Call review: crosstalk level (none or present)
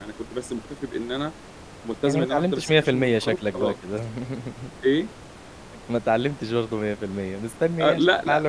present